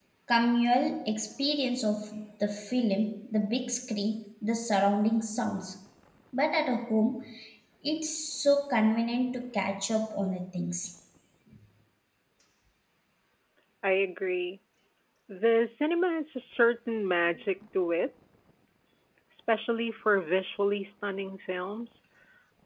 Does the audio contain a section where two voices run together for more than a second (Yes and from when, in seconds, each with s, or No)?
No